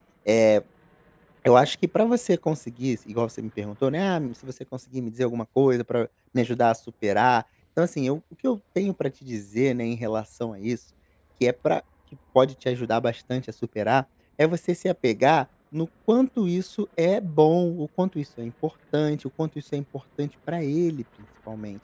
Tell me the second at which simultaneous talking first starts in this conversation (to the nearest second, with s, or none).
none